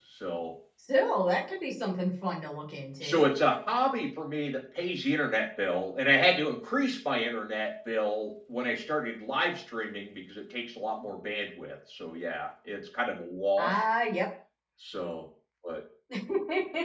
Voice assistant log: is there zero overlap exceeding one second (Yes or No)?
Yes